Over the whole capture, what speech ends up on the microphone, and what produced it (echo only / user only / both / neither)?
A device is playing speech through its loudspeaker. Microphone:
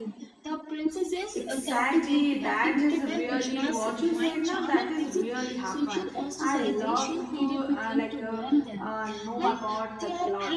both